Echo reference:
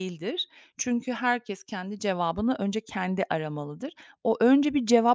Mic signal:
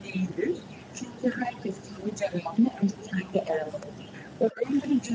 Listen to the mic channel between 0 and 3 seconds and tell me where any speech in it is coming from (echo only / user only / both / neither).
echo only